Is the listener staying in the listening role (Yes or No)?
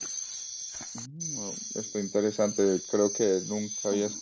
Yes